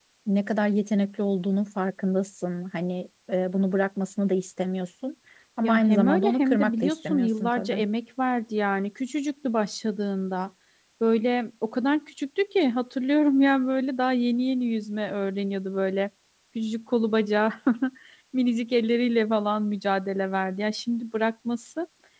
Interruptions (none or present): present